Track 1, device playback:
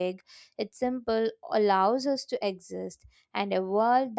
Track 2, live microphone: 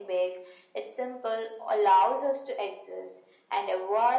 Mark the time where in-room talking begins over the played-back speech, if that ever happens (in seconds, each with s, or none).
none